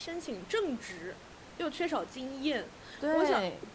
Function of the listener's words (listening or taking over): listening